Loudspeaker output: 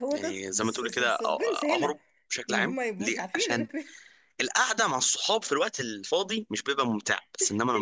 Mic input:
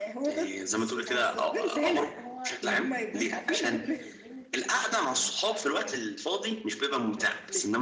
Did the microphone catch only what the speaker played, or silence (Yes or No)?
No